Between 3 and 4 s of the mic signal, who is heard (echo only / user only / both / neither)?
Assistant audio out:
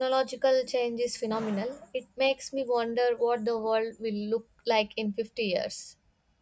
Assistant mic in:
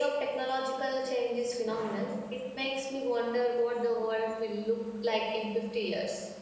echo only